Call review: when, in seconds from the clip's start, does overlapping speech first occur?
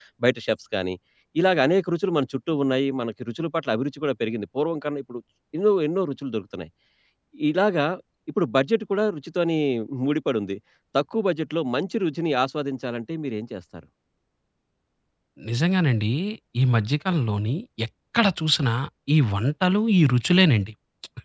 none

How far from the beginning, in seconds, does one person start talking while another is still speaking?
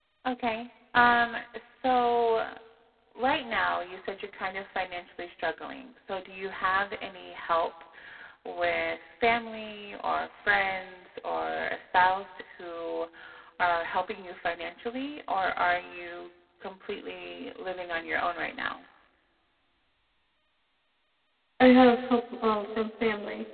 none

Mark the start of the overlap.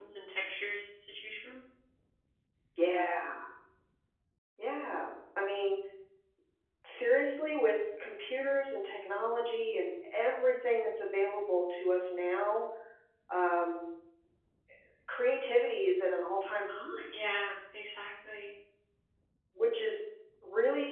none

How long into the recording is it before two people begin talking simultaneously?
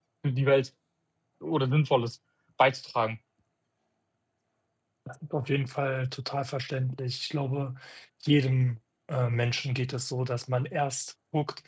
none

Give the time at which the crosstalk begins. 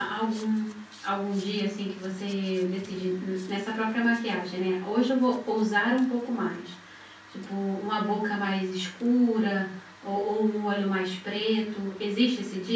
none

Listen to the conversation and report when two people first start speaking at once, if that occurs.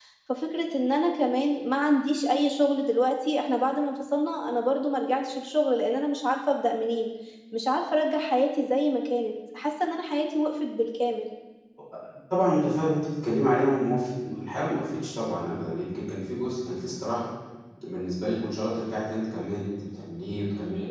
none

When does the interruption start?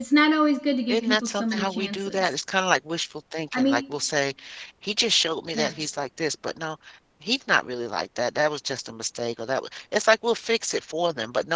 1 s

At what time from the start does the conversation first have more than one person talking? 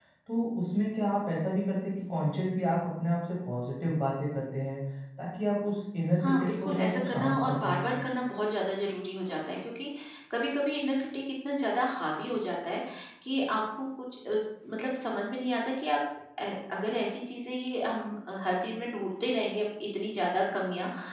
6 s

